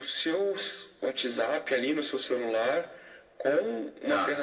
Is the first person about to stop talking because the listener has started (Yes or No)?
No